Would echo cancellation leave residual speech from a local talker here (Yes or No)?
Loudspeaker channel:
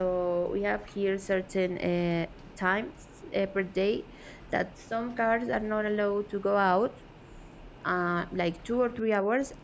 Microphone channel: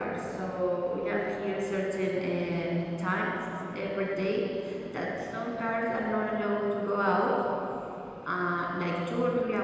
No